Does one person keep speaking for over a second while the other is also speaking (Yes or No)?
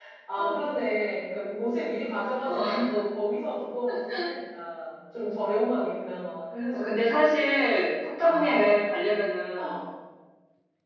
No